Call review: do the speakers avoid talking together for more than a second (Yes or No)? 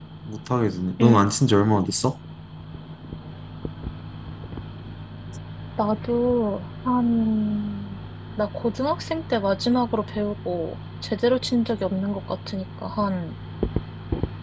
Yes